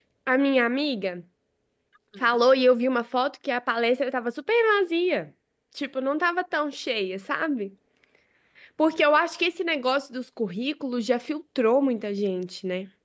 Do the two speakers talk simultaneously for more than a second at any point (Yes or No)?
No